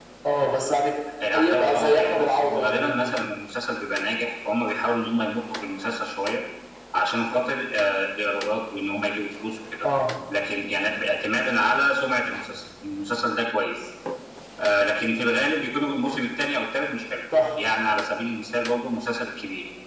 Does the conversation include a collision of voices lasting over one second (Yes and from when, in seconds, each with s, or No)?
Yes, from 1.3 s